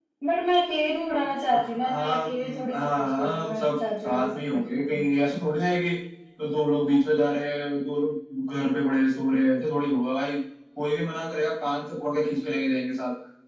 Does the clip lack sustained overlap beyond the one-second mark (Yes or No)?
No